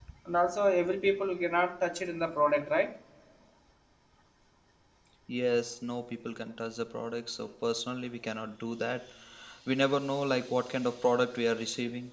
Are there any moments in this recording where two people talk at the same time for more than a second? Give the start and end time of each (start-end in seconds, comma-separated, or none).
none